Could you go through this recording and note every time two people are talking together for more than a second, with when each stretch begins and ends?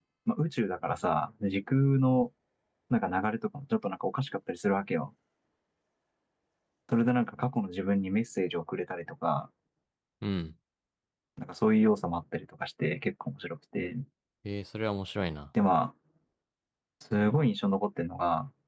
none

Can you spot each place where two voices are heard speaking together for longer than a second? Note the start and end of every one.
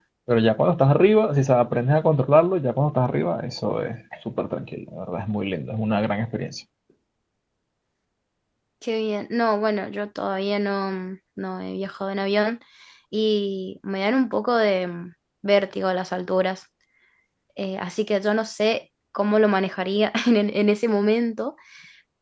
none

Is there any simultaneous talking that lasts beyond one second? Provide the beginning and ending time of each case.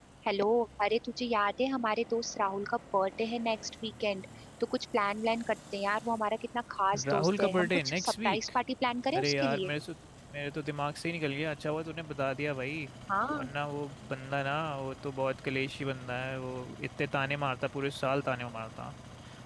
7.1-8.4

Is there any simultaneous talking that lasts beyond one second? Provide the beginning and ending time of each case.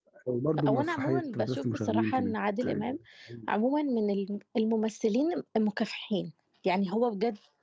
0.7-2.4

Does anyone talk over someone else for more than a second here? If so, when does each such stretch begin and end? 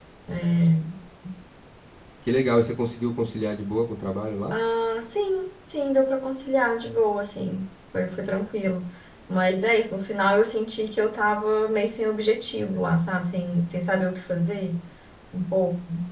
none

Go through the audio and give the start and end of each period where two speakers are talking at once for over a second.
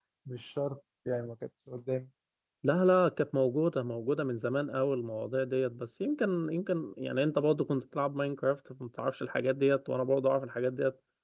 none

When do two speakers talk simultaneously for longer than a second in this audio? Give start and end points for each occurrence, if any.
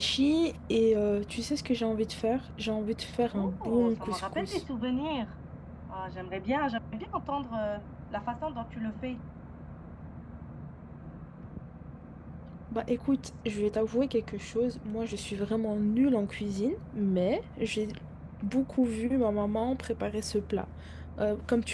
3.3-4.6

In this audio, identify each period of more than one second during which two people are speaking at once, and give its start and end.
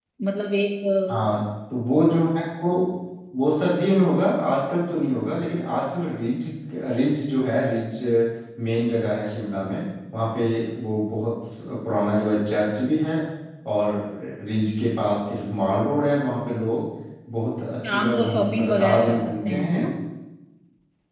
17.9-19.8

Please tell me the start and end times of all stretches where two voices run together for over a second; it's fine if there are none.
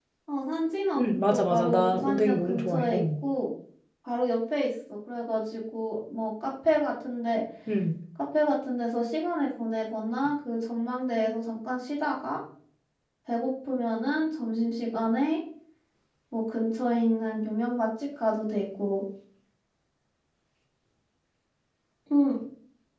1.0-3.0

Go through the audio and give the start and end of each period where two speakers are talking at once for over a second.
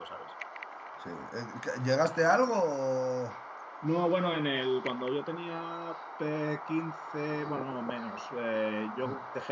none

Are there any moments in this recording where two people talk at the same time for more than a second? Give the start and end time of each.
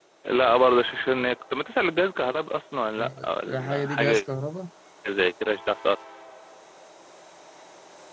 3.0-4.2

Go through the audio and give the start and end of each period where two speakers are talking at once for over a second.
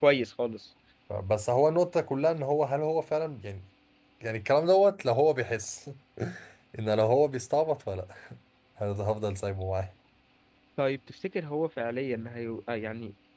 none

